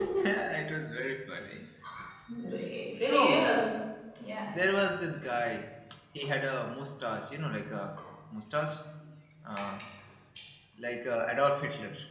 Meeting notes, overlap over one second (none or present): none